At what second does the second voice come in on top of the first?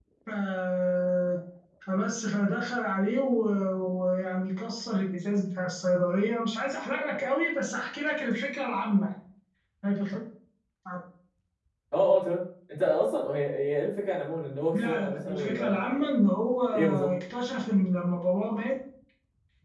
14.7 s

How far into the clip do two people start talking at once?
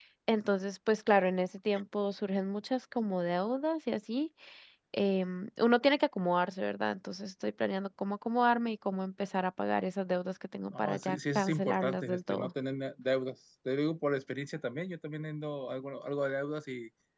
10.7 s

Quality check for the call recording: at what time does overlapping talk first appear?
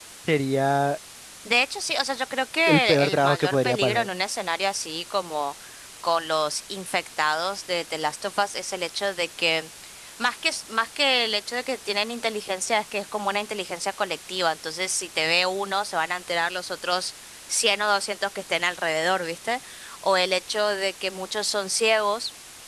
2.7 s

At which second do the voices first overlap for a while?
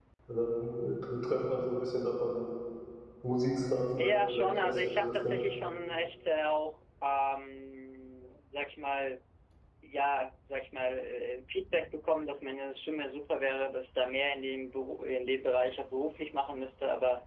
4.0 s

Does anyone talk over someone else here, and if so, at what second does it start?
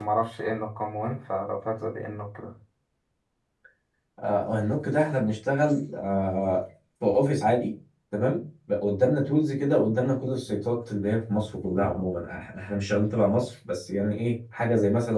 none

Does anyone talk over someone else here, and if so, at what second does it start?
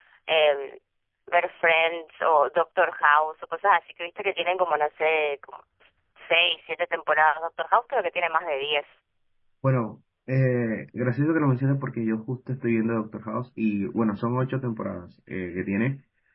none

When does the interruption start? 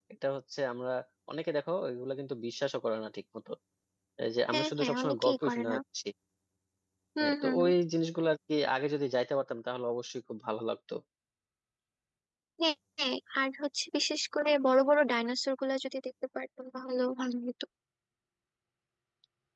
4.5 s

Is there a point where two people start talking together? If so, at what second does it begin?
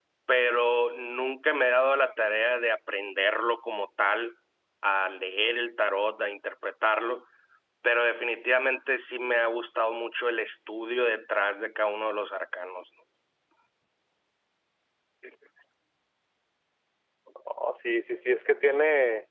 none

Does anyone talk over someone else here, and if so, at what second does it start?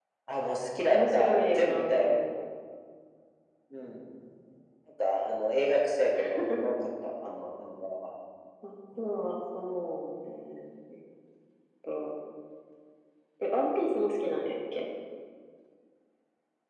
0.9 s

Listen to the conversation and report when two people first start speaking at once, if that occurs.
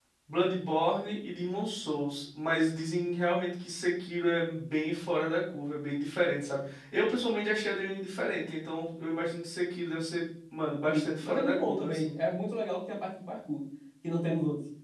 10.9 s

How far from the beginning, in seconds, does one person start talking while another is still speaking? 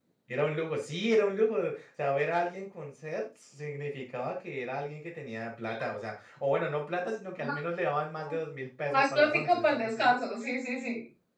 8.9 s

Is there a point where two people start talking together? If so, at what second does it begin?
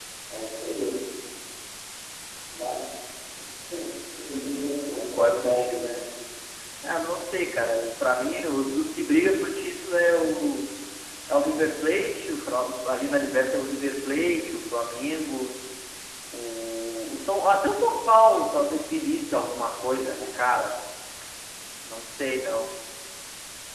4.3 s

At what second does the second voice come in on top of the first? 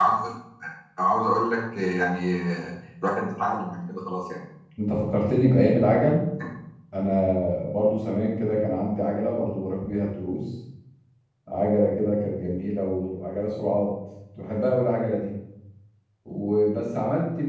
none

